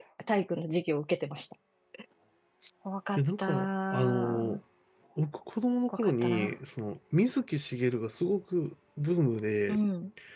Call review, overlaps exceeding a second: present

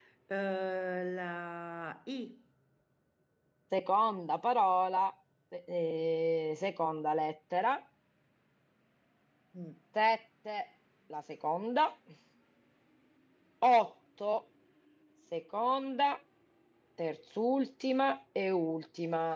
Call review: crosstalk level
none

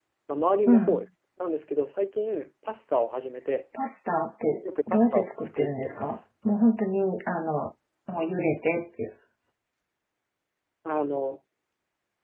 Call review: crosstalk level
present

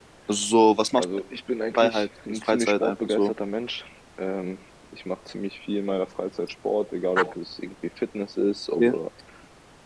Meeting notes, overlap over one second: present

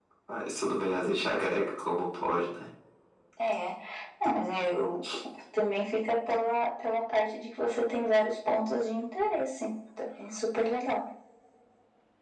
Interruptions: none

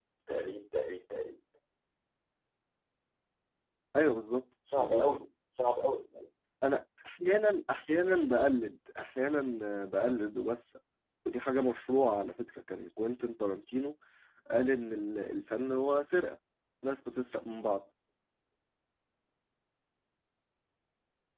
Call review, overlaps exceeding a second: none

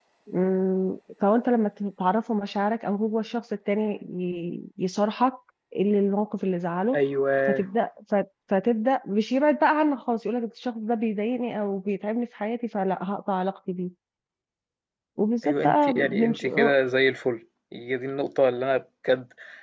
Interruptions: present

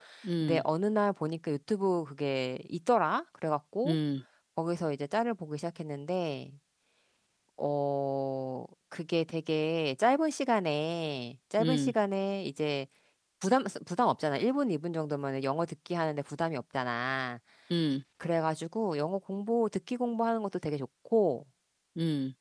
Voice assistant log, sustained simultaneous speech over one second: none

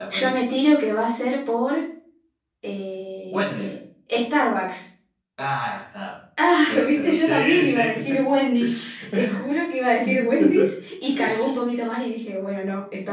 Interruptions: present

